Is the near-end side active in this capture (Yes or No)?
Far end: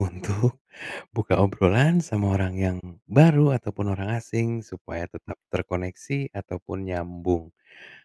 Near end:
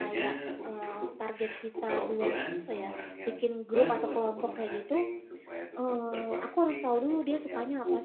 Yes